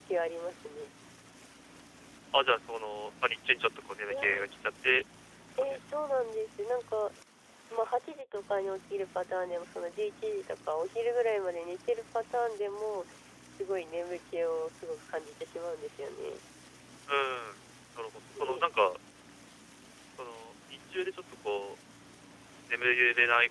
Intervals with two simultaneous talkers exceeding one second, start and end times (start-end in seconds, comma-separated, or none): none